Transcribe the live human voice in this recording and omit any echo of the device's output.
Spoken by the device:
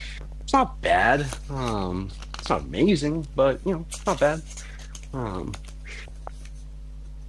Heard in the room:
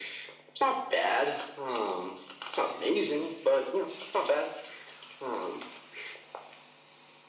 none

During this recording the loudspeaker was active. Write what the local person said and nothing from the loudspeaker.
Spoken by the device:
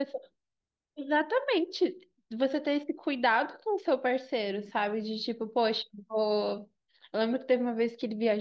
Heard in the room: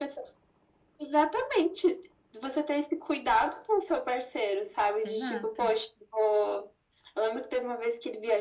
exato.

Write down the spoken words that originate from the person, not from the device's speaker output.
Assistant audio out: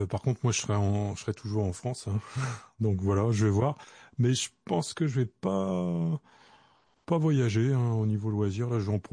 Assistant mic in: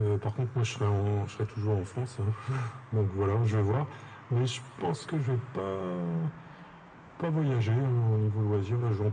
none

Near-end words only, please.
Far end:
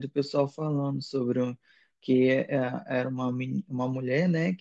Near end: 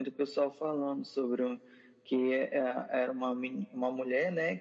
none

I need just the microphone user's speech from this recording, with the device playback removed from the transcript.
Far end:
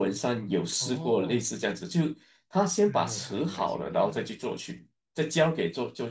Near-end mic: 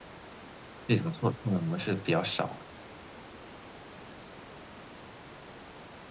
这种错判的模式比较少。

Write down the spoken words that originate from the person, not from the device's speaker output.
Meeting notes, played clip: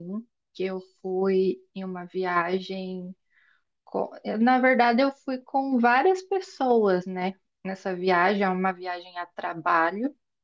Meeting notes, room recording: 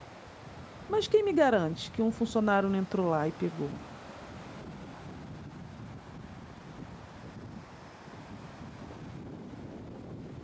Mas quem me garante que um funcionário não entrou lá e pegou?

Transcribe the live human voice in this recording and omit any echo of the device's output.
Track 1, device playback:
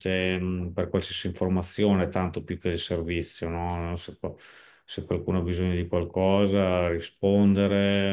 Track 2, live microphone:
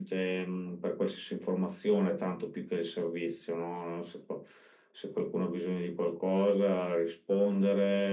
none

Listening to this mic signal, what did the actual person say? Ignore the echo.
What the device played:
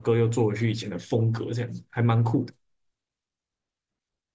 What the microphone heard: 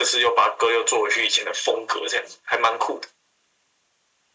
none

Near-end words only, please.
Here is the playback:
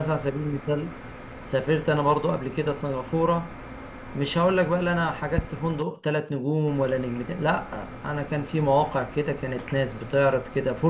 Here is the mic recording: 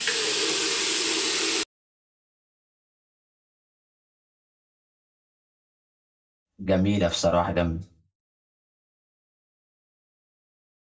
جميلة بصراحة جميلة

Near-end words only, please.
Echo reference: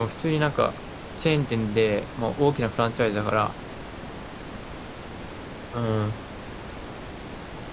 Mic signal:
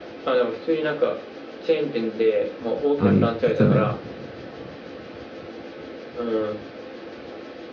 あ、言ってたね。

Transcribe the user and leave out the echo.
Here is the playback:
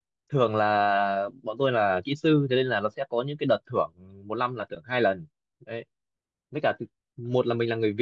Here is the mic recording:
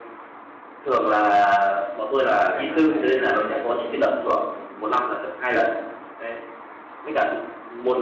Cho nên là kiểu như là cũng cũng

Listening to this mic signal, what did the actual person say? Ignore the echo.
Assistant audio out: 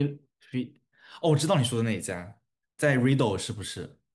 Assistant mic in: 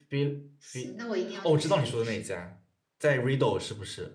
行，那我一定要去试一试。

